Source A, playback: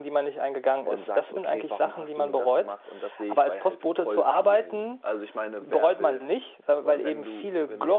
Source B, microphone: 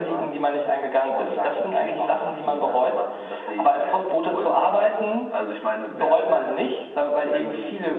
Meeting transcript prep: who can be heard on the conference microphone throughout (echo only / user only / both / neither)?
echo only